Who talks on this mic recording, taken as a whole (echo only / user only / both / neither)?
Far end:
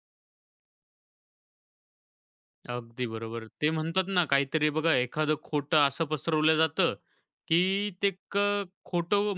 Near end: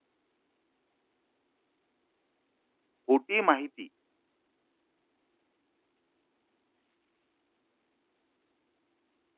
user only